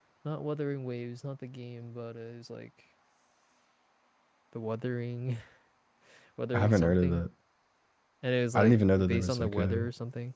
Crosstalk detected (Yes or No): Yes